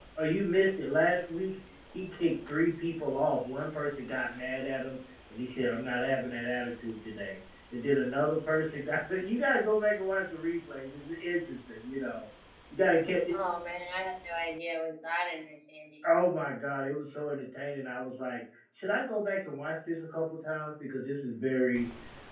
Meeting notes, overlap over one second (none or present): none